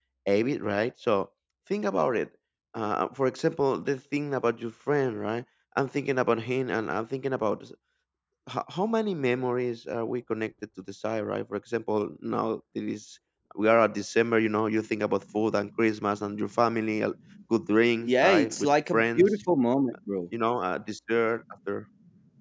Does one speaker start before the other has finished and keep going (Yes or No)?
Yes